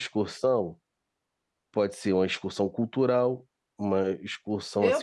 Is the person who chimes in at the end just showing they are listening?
No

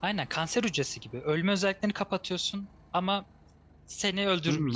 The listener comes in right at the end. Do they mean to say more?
Yes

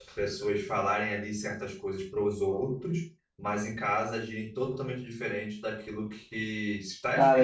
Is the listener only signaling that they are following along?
No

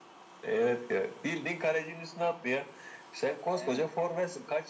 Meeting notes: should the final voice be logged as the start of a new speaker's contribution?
No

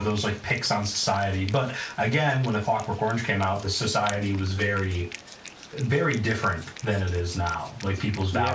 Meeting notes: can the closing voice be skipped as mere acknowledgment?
No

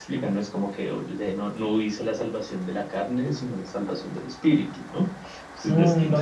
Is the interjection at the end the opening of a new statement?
Yes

